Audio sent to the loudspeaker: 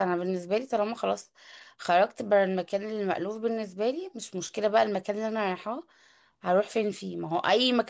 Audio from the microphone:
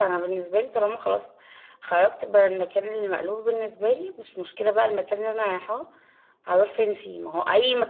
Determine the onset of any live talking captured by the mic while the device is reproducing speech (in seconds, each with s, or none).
none